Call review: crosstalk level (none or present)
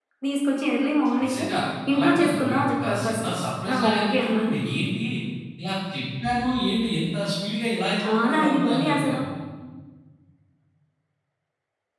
present